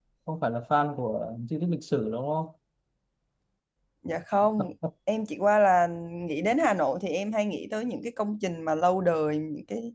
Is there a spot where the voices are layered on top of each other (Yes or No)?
No